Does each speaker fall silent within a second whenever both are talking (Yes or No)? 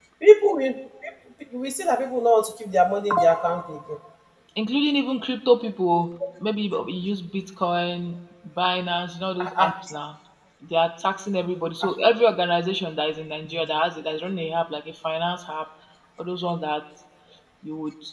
Yes